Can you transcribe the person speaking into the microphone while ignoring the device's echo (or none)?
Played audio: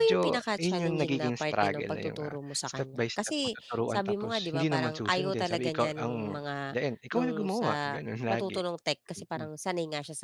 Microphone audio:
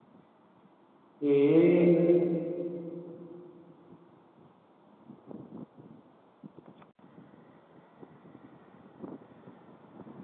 Hmm.